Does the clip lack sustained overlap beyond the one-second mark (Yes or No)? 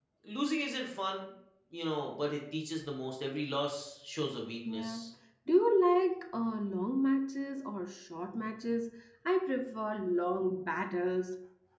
Yes